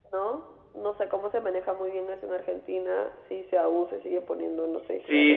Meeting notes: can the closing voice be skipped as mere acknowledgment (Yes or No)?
No